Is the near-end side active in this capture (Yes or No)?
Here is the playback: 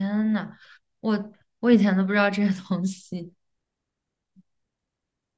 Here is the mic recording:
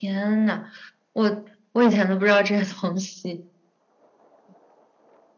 No